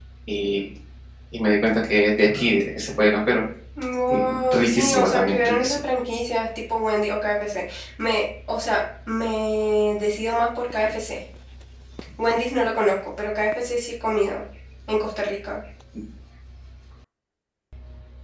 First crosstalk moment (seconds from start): 4.1 s

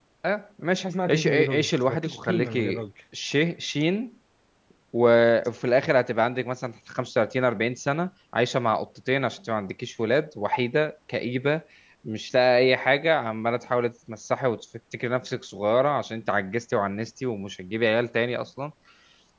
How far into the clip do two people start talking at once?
0.8 s

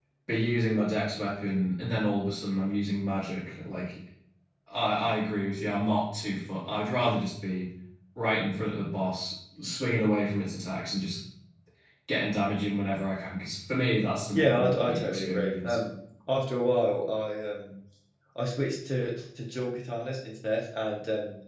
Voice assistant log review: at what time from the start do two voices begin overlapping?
14.3 s

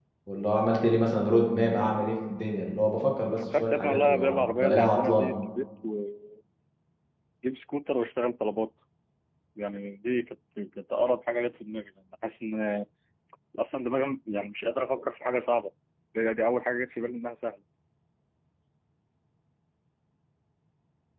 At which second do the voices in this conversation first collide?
3.3 s

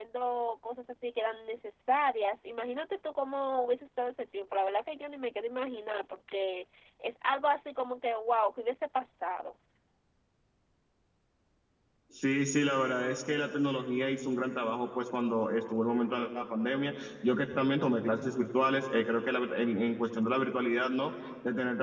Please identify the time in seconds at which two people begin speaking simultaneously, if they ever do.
none

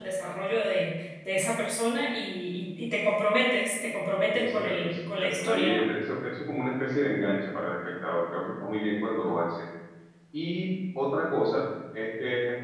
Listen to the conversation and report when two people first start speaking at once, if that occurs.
4.3 s

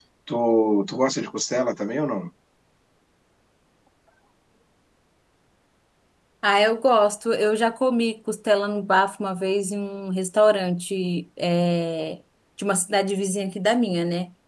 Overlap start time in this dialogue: none

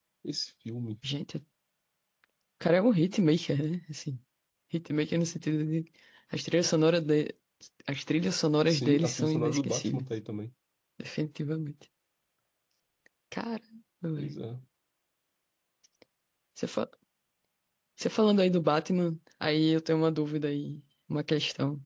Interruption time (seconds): 8.7 s

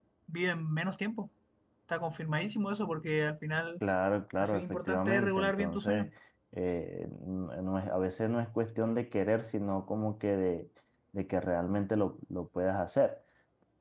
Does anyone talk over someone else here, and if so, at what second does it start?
4.4 s

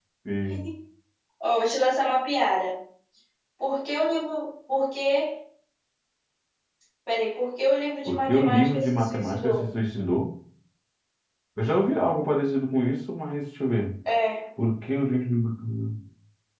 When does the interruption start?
8.1 s

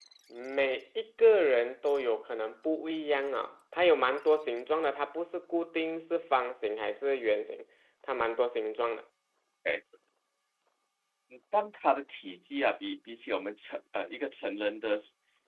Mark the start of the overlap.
none

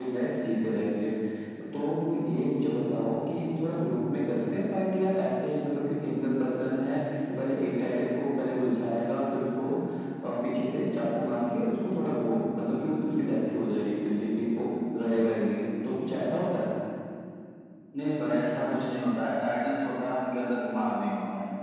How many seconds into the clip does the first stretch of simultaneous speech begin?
none

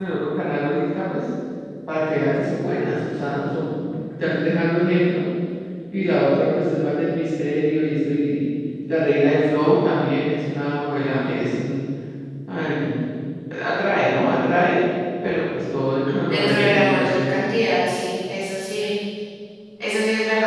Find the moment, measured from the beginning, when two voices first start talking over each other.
16.3 s

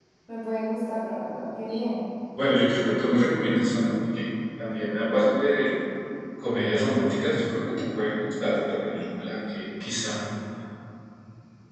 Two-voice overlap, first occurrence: none

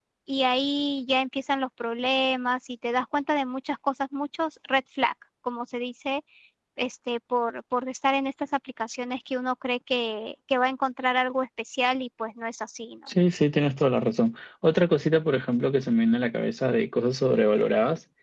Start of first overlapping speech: none

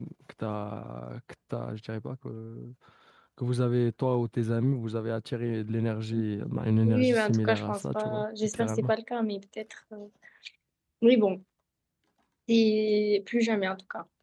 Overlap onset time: 6.8 s

